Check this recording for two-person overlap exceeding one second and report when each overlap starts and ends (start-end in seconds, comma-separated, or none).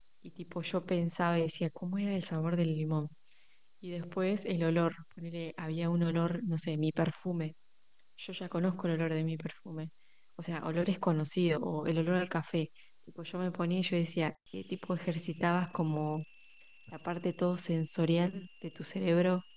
none